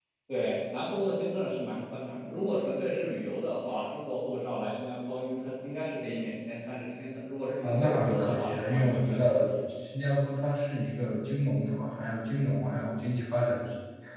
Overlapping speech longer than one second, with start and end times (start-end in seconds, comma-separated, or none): 7.6-9.4